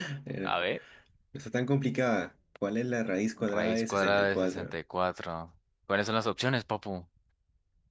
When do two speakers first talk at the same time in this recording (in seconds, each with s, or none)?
3.4 s